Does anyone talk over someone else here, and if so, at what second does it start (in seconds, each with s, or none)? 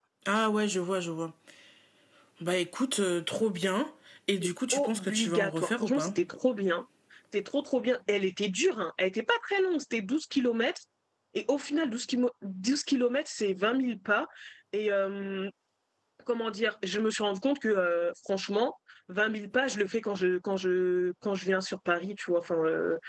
4.4 s